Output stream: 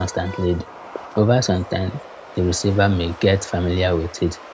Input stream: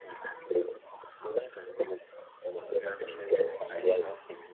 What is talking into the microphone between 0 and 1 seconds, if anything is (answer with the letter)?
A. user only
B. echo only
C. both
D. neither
B